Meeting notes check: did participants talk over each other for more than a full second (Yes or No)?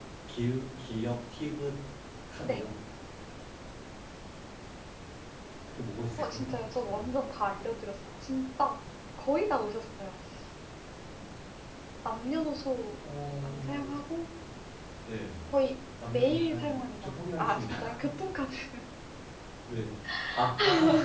Yes